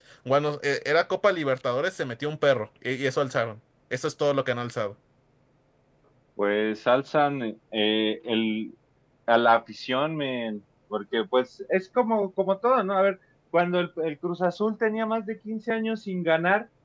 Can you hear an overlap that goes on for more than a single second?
No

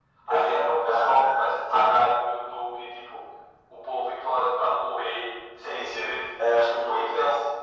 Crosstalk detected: Yes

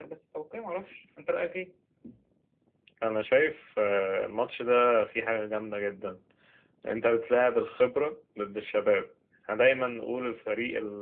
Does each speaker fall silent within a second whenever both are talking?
Yes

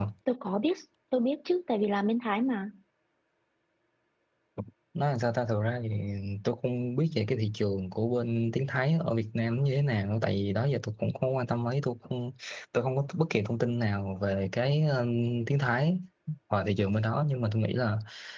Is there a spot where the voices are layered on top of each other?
No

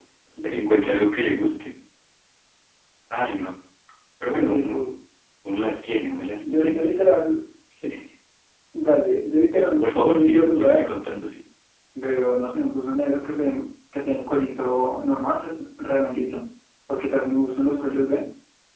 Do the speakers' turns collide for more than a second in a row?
Yes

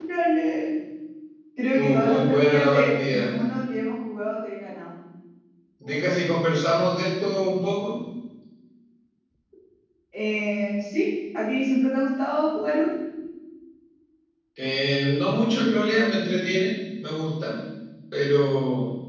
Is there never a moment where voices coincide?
No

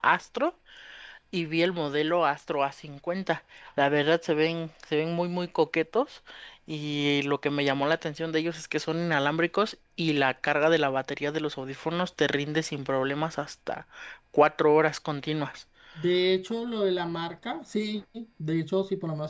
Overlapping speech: No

